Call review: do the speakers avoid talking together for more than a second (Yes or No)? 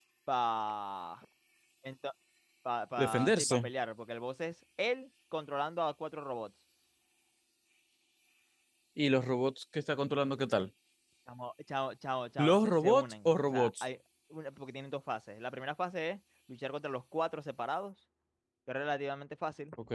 No